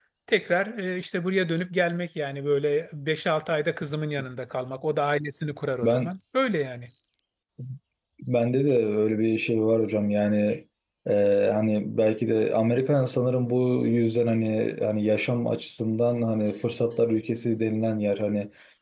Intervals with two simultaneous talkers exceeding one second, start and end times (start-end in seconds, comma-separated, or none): none